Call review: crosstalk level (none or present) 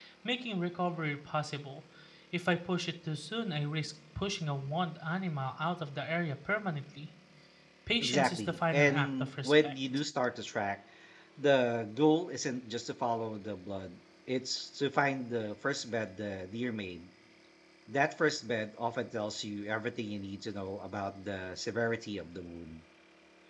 present